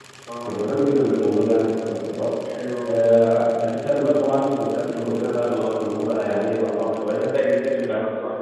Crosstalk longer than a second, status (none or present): none